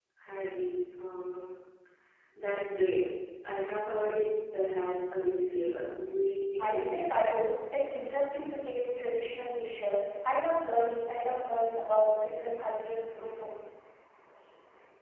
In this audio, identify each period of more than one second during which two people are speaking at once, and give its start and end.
none

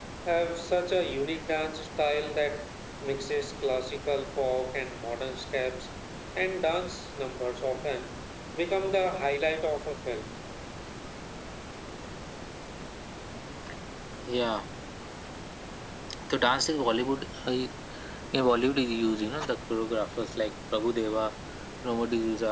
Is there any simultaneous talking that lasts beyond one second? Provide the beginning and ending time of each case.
none

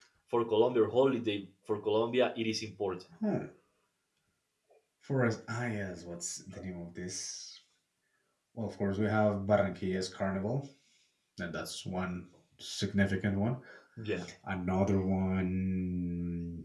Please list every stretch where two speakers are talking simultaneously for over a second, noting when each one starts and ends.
none

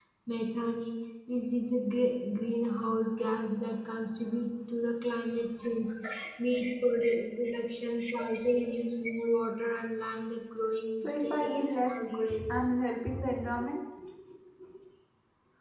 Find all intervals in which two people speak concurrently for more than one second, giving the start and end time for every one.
11.0-12.7

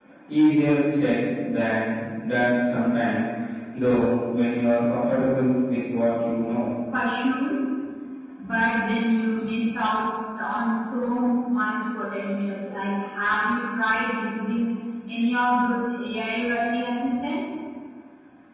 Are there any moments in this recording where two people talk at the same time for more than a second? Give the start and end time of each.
none

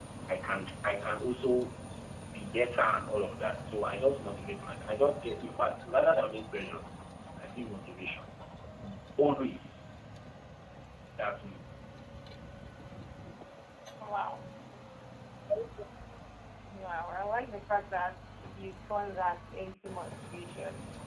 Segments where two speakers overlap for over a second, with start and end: none

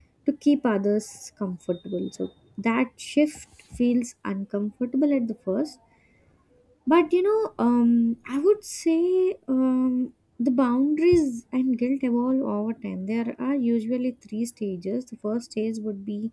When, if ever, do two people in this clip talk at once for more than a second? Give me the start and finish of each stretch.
none

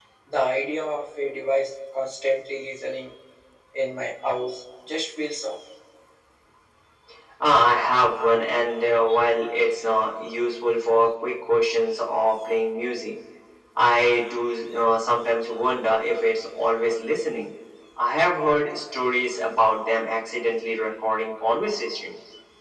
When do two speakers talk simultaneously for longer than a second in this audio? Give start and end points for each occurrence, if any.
none

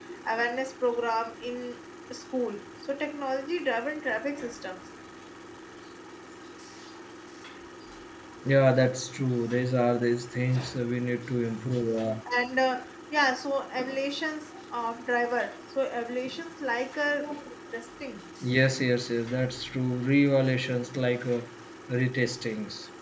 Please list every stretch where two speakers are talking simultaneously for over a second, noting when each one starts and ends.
none

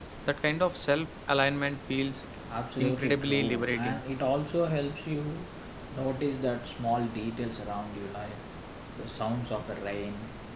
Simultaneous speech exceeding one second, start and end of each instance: 2.8-4.0

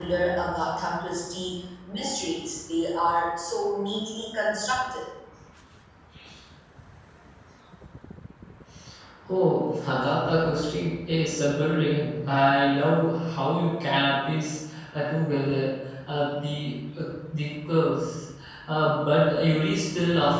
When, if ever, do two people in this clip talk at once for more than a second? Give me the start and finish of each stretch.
none

